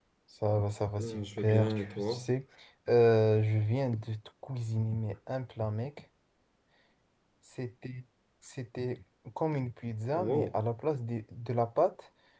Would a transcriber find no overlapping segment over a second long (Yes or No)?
No